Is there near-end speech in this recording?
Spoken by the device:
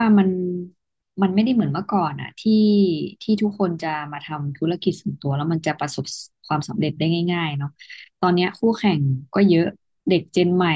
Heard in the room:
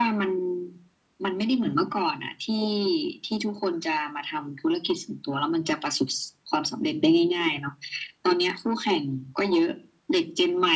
No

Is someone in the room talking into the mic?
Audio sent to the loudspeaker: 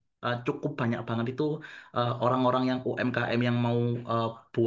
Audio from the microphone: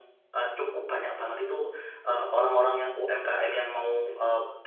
No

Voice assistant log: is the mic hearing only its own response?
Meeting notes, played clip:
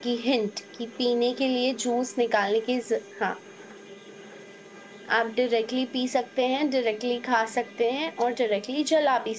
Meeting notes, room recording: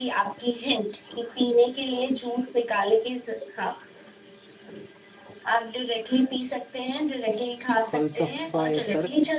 No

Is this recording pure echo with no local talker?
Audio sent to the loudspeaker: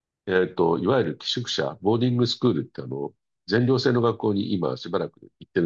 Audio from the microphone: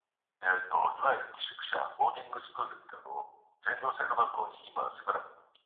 Yes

